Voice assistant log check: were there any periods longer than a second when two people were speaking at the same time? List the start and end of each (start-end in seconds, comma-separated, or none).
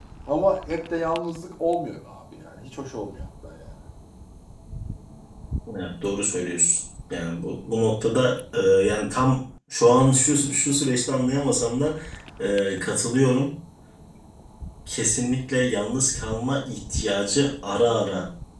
none